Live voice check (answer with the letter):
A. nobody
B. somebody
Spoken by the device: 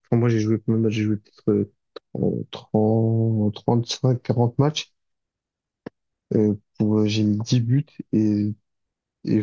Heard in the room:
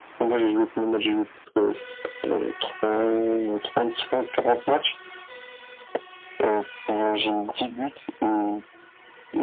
A